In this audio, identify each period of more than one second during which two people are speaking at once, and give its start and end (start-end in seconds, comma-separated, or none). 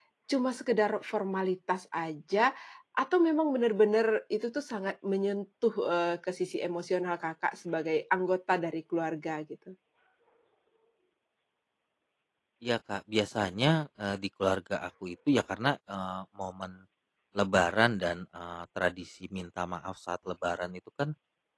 none